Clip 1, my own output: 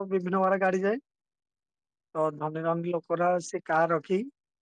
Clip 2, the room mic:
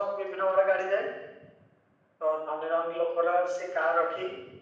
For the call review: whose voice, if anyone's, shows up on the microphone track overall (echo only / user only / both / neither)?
echo only